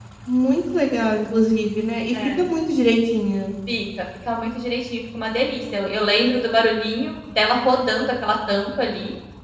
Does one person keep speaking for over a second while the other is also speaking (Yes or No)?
No